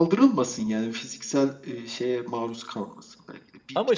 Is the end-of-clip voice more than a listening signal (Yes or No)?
No